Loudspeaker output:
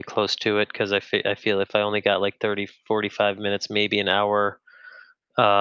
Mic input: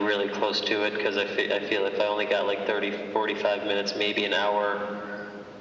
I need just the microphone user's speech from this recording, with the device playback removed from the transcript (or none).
none